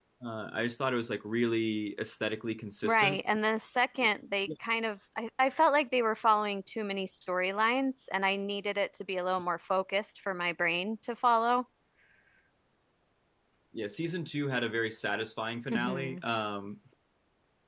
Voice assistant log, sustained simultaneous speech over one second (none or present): none